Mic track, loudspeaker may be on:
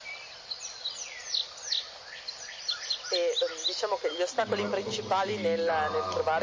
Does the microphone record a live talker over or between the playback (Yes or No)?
Yes